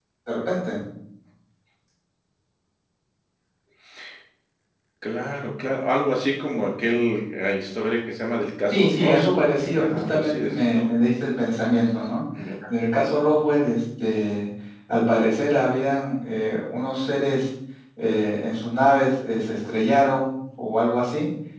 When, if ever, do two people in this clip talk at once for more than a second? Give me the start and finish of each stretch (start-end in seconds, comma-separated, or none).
8.7-10.9